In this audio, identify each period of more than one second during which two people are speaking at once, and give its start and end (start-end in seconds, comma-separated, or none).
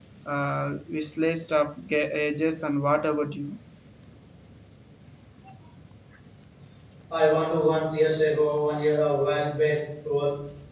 none